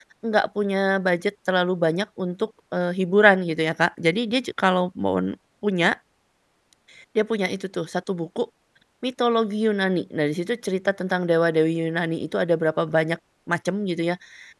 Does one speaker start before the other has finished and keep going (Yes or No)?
No